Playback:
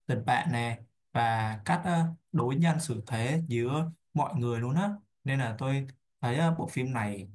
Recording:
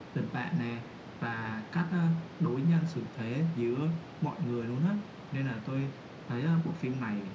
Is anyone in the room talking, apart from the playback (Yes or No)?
No